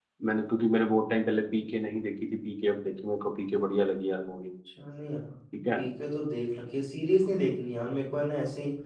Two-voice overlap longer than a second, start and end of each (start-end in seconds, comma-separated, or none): none